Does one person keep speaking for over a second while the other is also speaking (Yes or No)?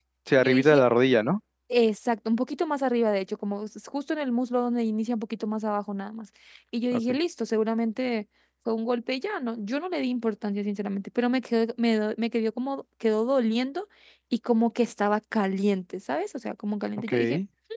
No